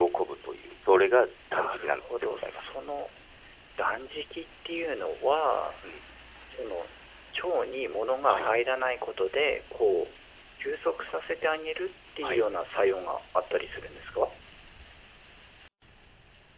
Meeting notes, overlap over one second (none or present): present